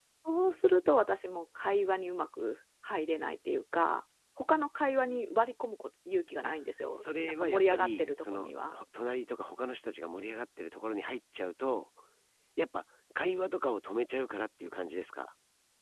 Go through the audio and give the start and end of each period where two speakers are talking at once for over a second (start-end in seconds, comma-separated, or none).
6.9-8.7